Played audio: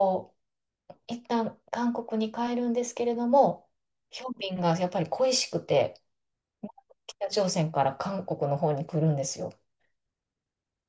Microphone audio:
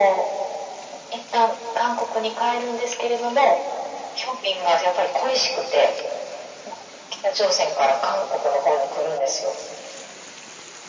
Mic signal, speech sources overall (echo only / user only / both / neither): echo only